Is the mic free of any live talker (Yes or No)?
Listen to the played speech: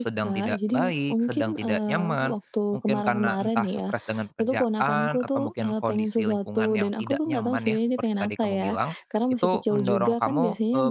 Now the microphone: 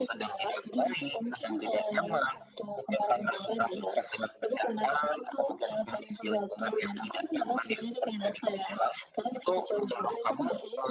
Yes